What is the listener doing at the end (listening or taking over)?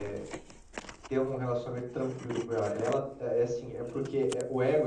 listening